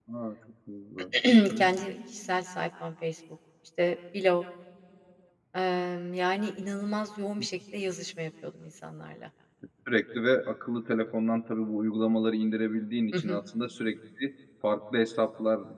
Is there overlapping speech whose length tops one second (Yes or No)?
No